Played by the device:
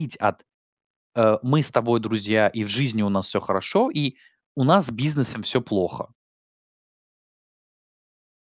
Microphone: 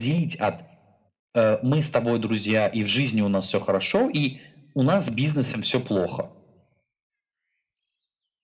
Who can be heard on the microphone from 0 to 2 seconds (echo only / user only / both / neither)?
echo only